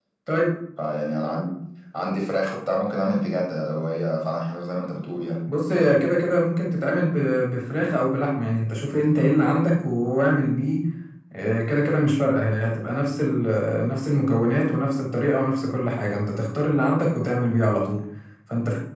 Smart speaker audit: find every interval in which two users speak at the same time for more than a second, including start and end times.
none

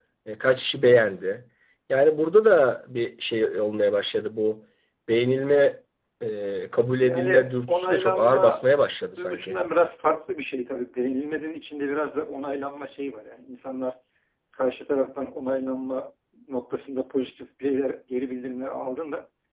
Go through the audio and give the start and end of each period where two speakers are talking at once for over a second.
7.0-8.6

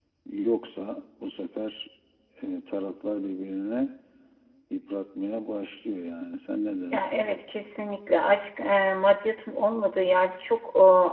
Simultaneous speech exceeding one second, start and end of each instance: none

